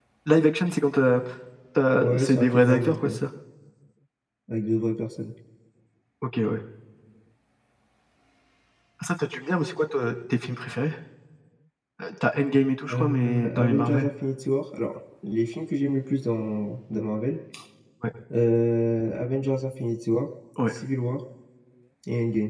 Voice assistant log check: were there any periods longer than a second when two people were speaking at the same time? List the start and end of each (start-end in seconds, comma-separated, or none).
1.9-3.2, 12.9-14.1